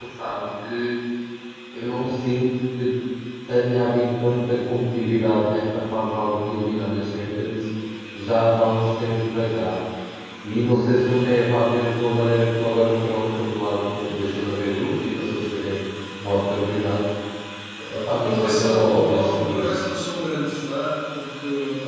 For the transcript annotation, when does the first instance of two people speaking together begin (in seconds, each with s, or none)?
17.9 s